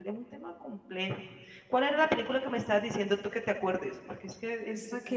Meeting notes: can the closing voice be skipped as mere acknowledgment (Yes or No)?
No